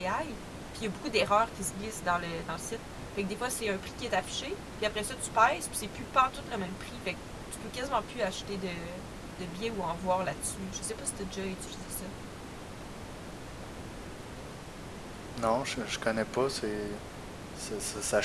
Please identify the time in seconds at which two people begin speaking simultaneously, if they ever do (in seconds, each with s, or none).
none